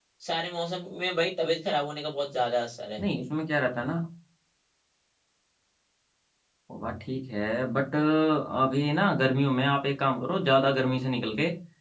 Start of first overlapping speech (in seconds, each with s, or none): none